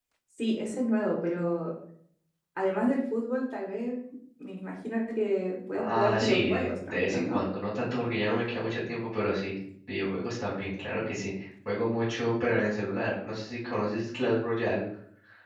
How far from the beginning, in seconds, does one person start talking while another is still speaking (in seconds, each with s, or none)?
5.7 s